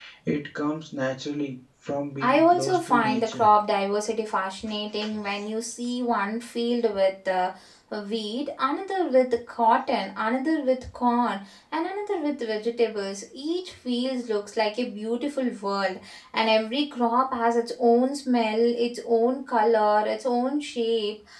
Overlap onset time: 2.2 s

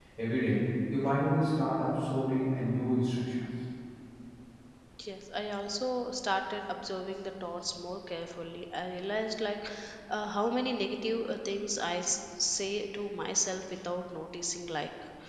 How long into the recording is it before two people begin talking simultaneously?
none

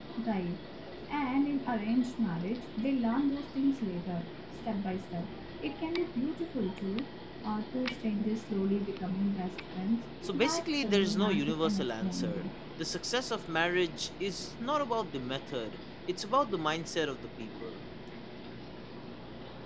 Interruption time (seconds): 10.2 s

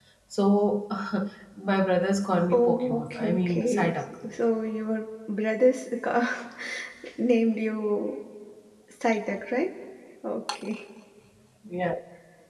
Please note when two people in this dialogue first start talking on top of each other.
2.5 s

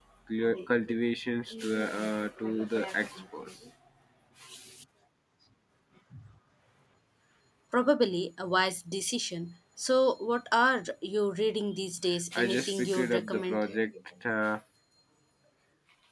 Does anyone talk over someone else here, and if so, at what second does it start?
12.3 s

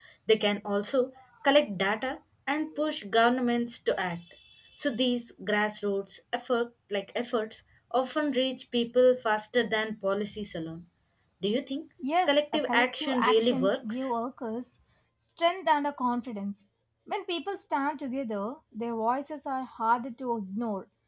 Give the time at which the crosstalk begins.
12.3 s

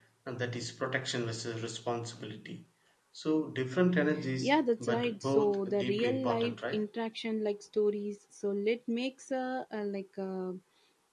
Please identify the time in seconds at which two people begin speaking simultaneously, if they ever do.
4.4 s

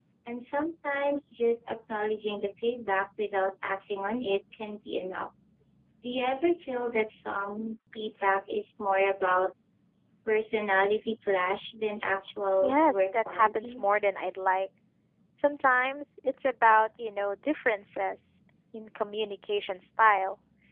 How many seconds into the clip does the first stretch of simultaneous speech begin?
12.6 s

